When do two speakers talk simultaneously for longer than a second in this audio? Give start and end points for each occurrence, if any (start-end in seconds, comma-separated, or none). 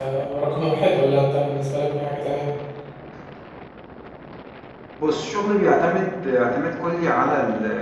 none